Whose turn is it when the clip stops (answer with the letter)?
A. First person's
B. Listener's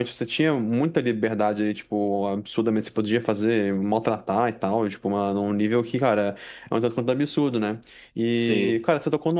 A